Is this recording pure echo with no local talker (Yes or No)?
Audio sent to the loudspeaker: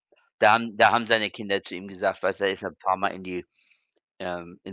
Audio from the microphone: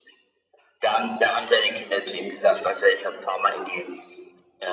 Yes